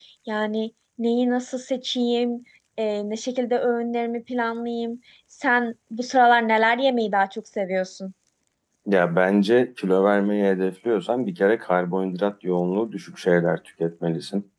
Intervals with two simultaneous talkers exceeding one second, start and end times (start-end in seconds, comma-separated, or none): none